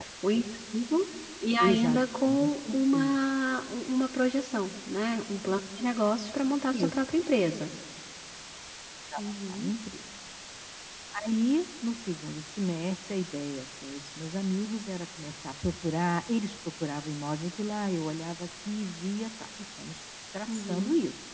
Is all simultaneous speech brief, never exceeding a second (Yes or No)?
No